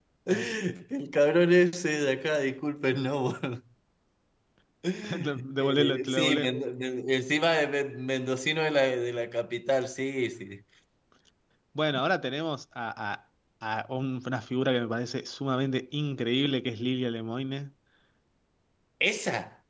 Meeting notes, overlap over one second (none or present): present